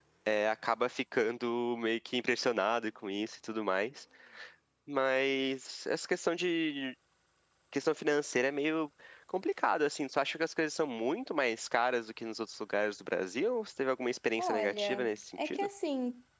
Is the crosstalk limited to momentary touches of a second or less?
No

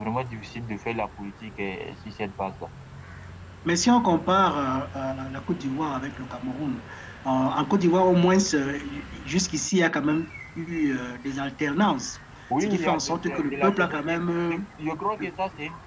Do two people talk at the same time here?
Yes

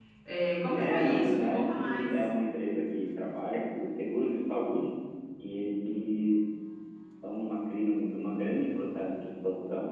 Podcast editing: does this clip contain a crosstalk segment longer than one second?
Yes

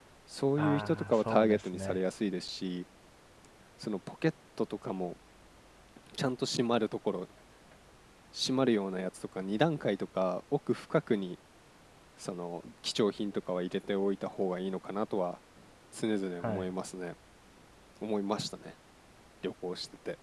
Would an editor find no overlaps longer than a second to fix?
No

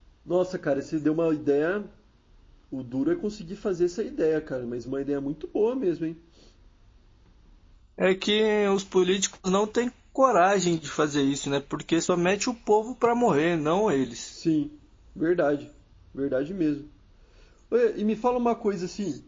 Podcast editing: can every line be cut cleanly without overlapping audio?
Yes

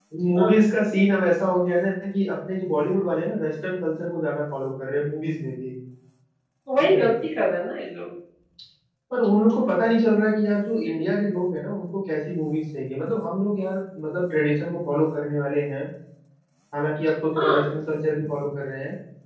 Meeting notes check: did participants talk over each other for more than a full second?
No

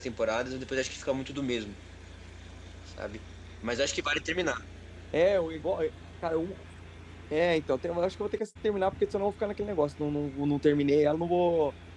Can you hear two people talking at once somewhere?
No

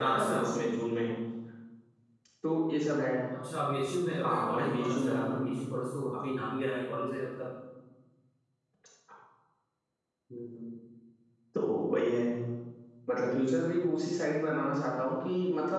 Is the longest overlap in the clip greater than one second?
Yes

